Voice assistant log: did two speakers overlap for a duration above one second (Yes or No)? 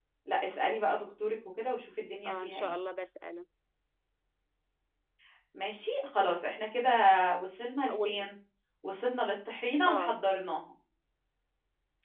No